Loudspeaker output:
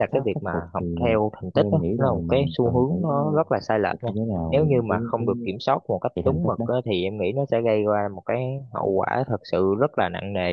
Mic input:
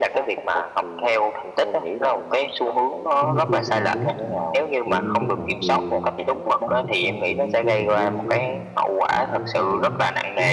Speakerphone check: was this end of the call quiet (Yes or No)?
No